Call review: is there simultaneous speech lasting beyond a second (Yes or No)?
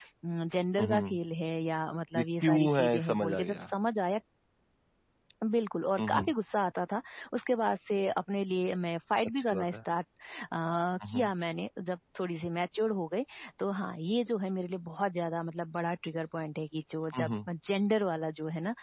Yes